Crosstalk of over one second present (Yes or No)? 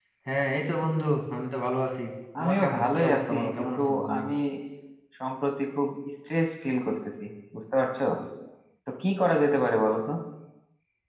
Yes